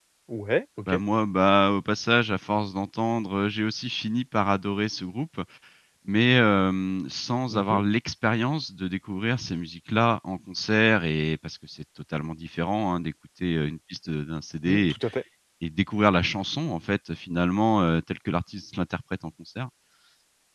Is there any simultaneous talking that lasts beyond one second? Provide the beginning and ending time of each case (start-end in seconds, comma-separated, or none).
none